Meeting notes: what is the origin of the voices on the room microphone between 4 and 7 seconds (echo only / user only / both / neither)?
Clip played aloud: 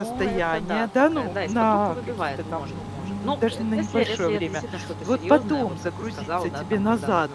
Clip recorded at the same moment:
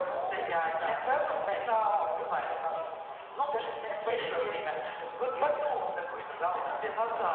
echo only